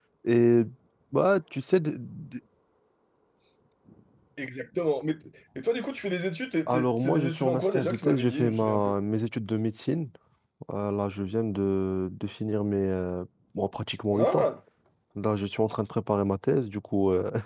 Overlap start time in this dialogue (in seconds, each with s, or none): 6.7 s